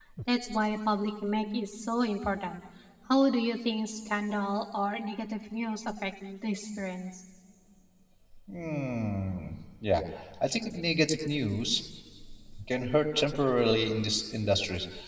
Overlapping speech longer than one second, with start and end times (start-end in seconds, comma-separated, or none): none